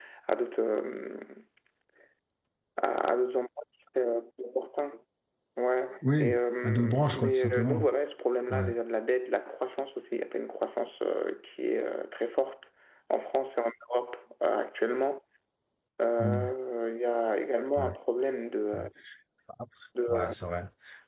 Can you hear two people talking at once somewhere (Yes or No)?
Yes